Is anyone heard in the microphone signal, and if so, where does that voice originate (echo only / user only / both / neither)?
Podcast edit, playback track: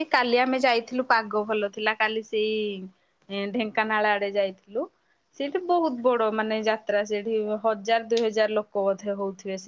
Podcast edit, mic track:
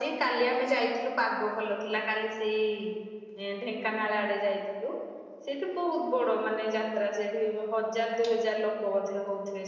echo only